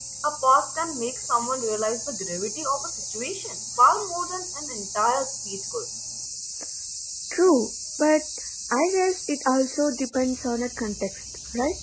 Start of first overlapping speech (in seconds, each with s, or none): none